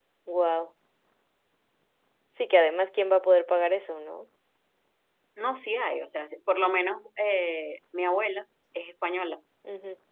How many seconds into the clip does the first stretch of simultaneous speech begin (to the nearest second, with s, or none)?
none